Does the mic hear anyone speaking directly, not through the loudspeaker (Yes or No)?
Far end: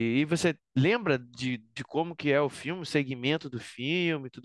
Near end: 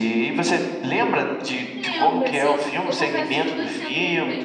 Yes